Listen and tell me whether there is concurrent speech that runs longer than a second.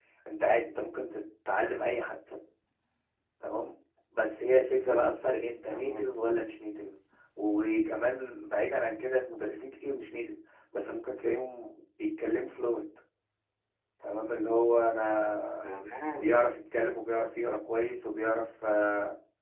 No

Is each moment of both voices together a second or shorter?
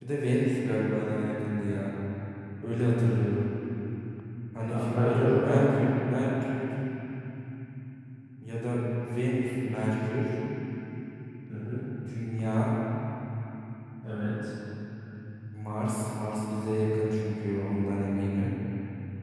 No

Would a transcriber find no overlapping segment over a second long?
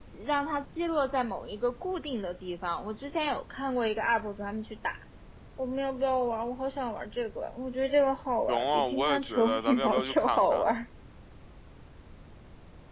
No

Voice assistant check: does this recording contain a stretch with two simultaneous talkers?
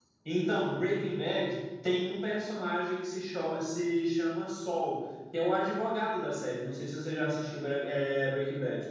No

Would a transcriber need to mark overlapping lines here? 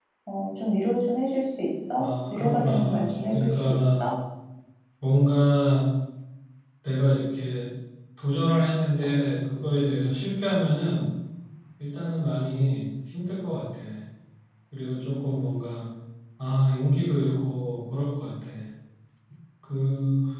Yes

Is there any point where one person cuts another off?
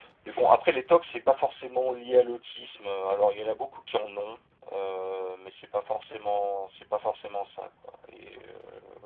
No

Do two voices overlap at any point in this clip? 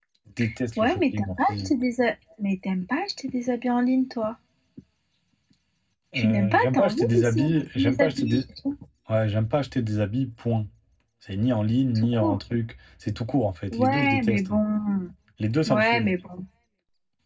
Yes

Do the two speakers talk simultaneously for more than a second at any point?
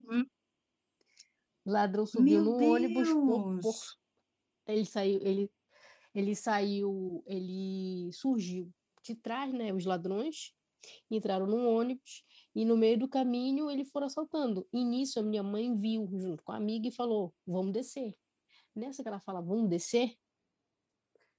Yes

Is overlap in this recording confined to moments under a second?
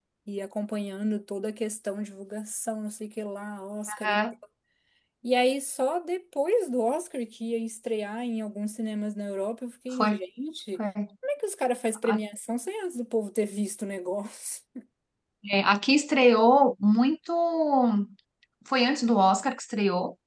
Yes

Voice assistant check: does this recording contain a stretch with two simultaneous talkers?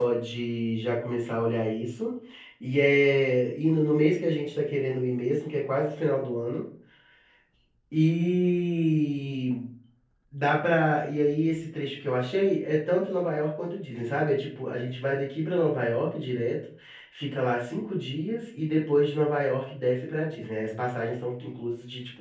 No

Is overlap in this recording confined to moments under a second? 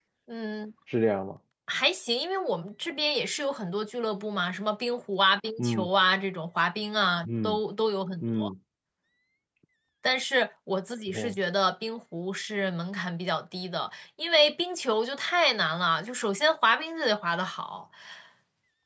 Yes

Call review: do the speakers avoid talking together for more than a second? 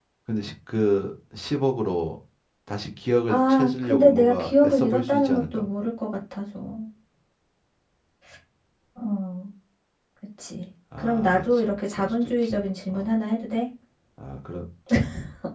No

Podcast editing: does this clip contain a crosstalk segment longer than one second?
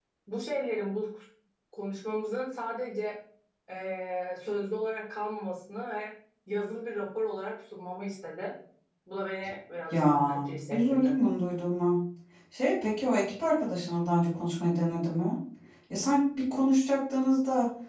Yes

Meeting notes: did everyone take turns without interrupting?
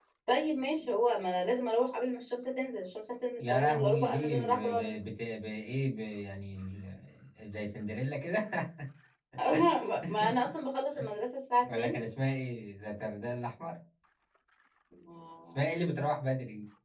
No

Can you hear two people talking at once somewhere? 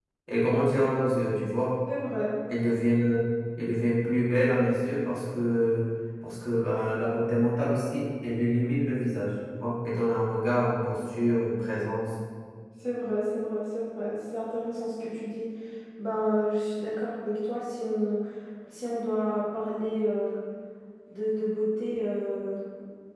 No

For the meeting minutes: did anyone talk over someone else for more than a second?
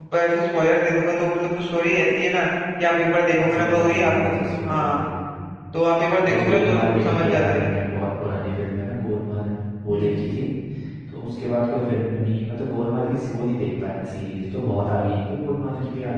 Yes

